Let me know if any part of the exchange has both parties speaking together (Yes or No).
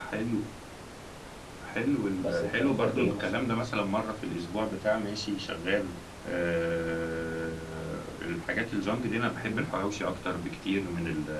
Yes